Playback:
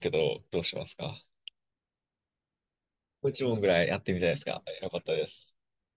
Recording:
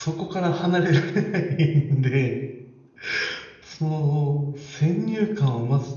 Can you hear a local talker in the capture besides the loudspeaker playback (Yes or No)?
Yes